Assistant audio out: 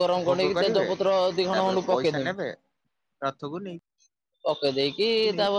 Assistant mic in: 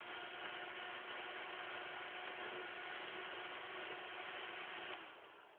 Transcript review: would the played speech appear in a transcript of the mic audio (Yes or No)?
No